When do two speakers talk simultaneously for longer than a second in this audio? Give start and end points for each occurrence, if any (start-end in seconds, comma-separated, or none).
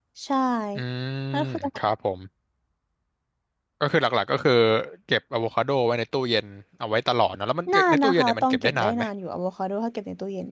7.7-9.0